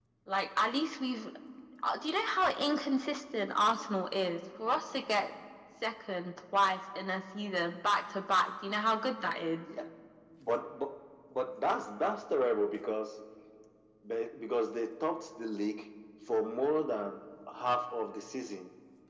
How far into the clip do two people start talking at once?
none

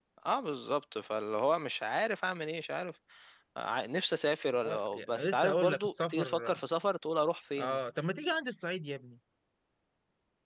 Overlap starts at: 4.6 s

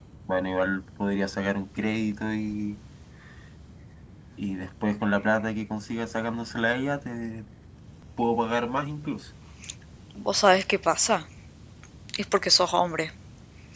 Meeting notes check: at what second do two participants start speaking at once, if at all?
none

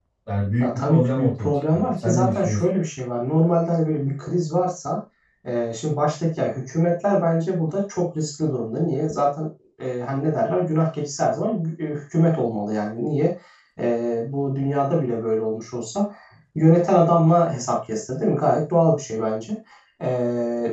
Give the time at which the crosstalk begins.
0.6 s

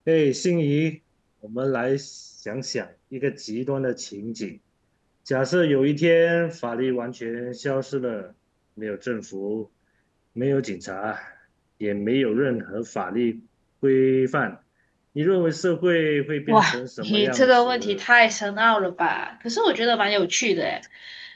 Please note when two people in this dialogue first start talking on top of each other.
16.5 s

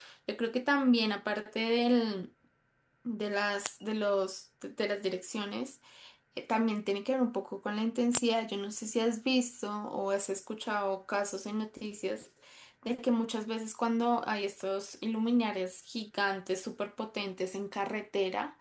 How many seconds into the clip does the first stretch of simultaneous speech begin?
none

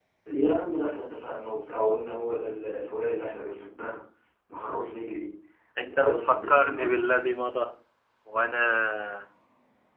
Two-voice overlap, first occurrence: 5.9 s

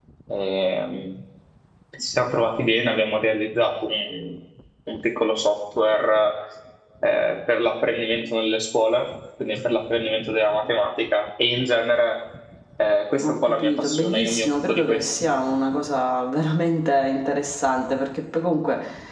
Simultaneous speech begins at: 13.2 s

